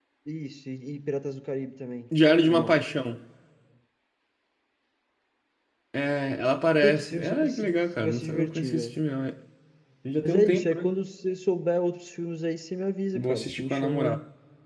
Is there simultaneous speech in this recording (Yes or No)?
Yes